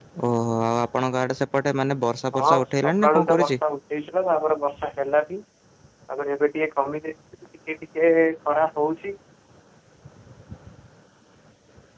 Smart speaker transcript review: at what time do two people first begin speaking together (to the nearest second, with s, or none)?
2 s